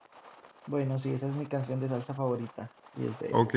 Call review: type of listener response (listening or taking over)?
taking over